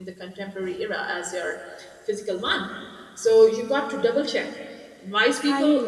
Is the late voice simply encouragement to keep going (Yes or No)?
Yes